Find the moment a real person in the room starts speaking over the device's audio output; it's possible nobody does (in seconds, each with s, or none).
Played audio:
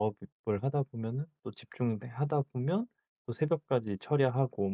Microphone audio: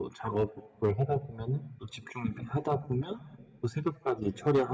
none